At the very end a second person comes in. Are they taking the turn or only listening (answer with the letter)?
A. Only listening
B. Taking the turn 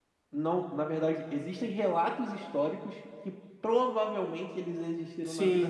B